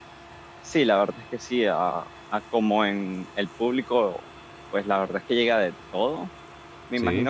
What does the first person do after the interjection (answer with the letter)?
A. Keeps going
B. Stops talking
A